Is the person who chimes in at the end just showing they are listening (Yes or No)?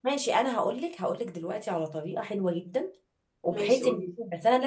Yes